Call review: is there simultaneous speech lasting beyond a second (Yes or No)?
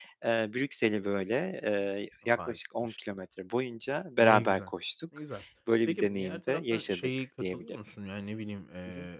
Yes